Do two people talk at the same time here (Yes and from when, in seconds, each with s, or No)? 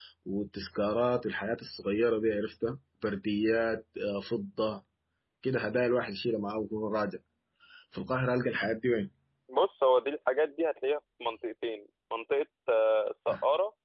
No